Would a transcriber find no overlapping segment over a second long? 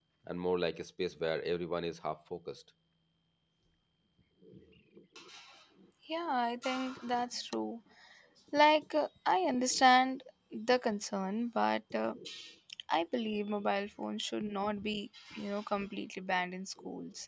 Yes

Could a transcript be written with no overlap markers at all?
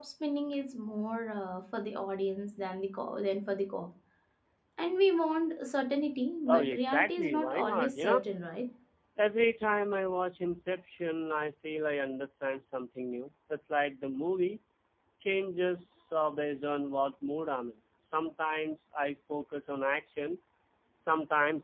No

